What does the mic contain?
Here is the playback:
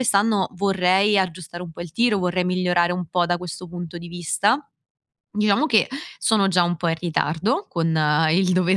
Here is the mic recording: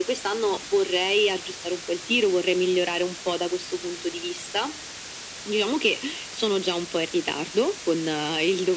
echo only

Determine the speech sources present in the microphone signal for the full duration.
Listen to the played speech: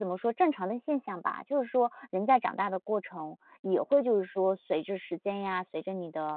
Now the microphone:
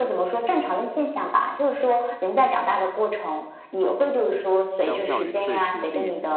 both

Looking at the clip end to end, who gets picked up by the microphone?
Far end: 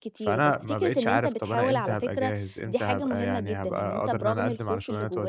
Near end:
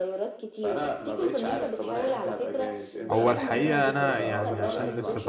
both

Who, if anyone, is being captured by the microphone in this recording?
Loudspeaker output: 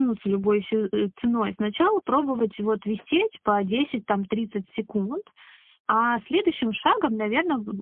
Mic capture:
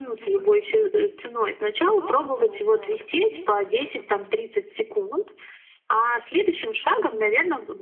both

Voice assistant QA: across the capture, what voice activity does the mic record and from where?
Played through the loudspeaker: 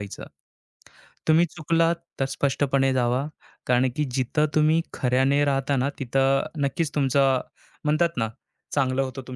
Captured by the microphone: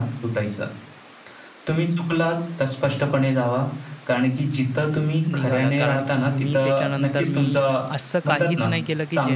both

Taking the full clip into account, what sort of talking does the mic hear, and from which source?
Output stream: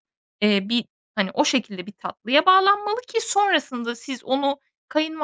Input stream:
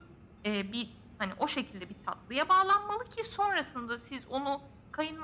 echo only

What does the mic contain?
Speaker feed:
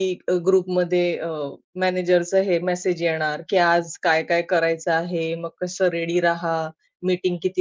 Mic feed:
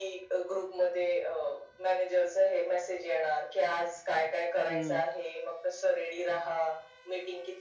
both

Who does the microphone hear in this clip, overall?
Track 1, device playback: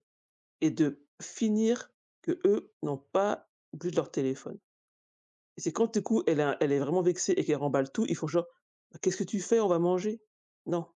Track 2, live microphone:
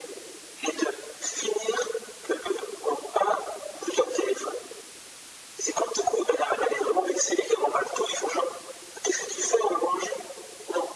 echo only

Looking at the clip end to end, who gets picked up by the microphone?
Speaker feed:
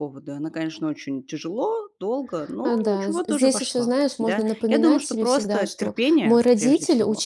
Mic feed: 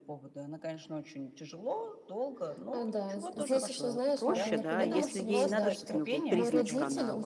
both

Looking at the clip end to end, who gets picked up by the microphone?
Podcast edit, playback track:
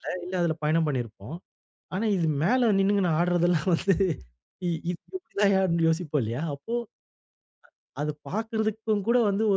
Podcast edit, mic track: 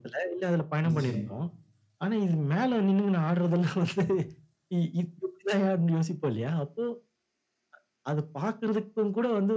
both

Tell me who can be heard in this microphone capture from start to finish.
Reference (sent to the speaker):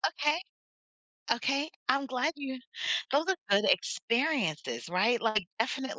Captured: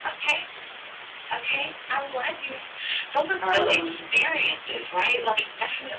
both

